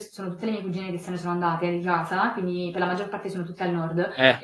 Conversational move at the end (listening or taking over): listening